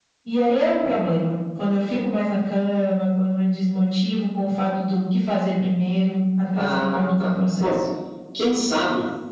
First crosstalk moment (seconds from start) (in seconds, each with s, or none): 6.6 s